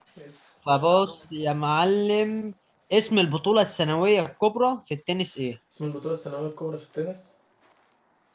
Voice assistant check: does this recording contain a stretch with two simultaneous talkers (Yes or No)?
No